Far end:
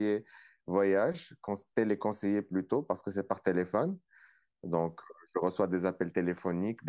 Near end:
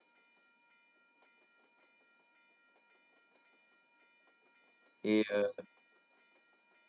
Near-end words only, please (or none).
Et, euh,